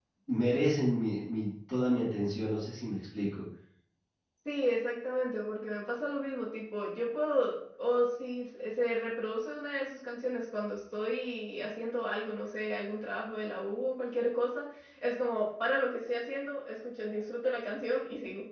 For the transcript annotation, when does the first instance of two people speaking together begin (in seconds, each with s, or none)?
none